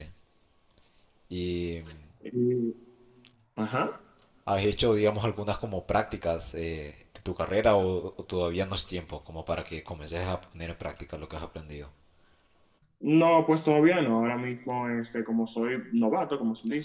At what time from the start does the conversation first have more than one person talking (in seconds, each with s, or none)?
none